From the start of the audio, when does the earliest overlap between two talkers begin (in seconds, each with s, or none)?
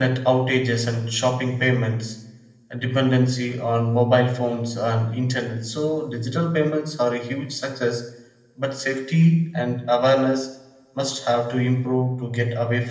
none